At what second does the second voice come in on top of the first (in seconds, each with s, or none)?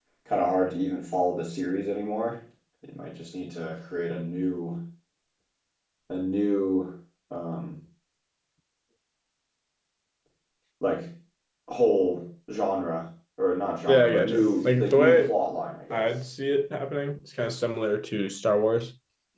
13.9 s